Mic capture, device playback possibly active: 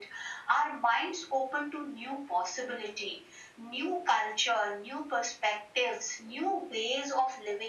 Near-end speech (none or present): none